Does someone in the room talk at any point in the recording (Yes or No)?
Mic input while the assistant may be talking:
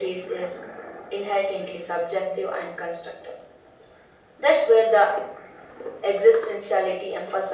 No